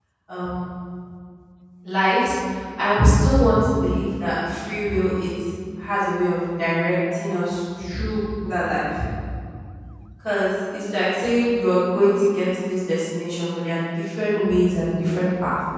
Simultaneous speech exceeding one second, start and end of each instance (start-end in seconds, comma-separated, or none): none